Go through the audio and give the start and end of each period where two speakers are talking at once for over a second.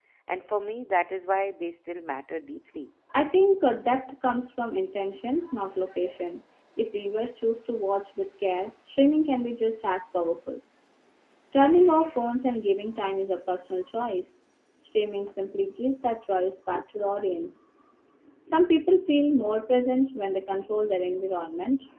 none

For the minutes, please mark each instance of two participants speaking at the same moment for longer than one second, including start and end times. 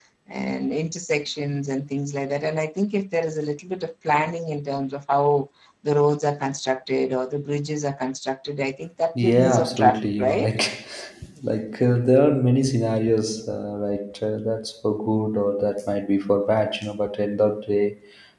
9.2-10.5

